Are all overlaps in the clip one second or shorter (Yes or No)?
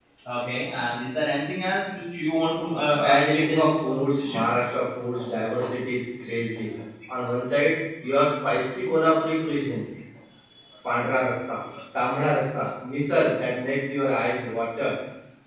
No